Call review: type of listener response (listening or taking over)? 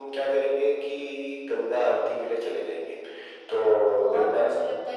taking over